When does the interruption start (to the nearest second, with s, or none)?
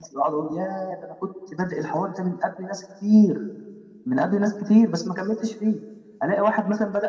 none